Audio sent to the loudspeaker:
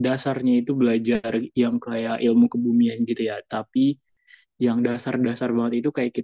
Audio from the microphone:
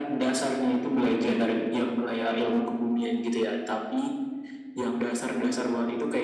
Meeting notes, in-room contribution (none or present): none